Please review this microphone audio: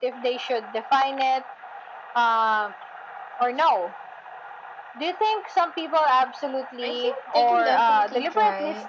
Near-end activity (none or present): present